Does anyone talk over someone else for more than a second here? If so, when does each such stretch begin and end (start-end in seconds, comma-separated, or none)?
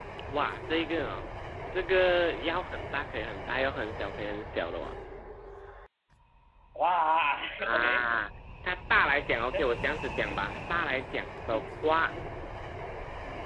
none